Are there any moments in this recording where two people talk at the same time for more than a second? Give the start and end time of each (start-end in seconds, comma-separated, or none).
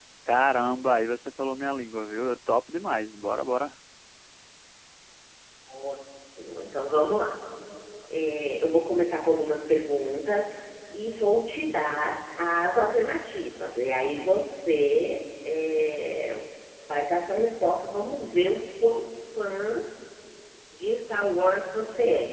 none